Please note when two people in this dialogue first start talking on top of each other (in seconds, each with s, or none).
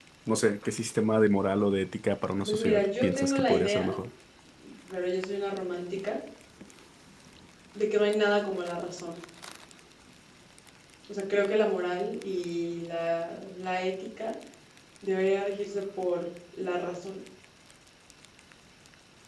2.4 s